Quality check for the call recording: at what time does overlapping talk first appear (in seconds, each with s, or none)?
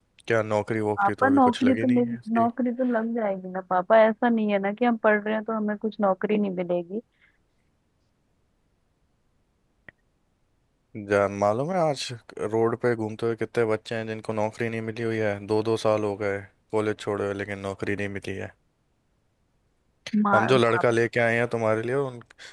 1.0 s